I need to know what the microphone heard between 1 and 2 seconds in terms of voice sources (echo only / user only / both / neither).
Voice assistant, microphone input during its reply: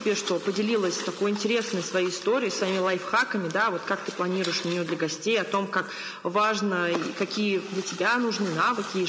echo only